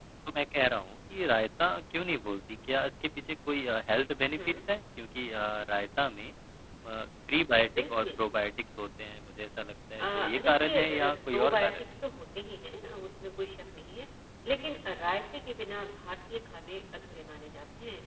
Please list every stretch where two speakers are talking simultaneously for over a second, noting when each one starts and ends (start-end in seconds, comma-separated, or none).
10.0-11.7